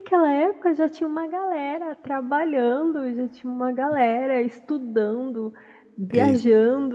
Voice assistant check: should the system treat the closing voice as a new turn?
No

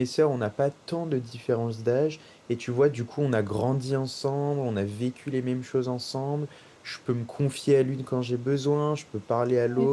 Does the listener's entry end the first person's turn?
No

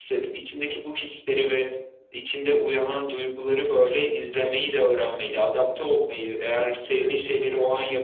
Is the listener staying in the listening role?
Yes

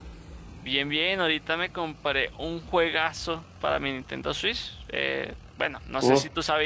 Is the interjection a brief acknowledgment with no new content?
Yes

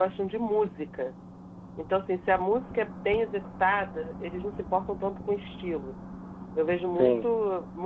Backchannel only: Yes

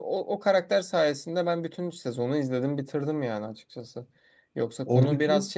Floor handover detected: No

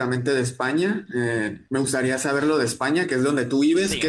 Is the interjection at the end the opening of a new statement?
No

